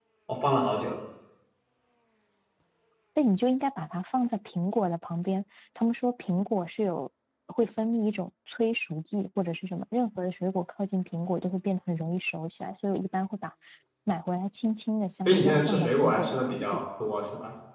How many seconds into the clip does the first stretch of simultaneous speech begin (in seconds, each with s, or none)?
15.2 s